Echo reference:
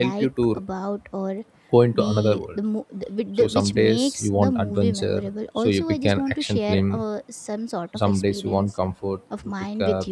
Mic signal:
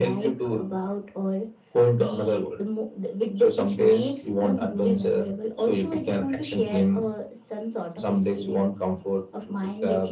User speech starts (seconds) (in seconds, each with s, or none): none